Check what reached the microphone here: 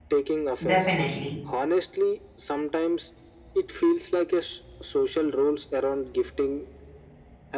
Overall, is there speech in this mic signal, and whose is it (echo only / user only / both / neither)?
both